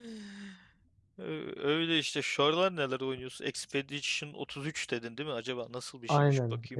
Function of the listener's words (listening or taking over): taking over